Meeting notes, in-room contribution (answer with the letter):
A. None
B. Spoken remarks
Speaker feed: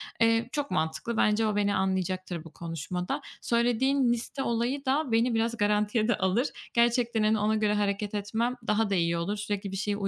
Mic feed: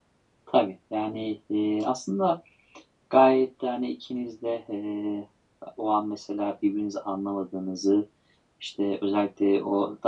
B